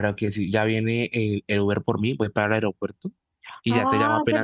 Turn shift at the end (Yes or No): Yes